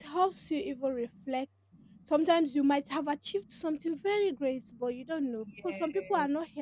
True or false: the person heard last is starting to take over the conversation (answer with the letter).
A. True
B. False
B